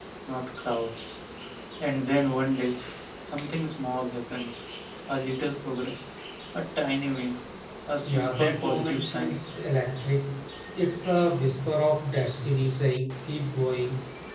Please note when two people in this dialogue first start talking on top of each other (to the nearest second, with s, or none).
8 s